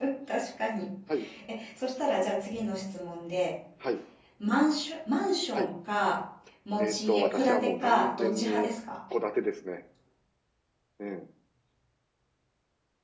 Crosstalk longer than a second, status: present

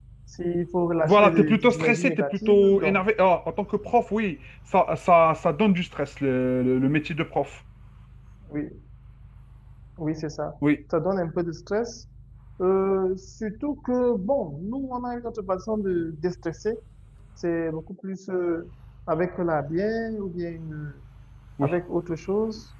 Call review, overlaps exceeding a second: present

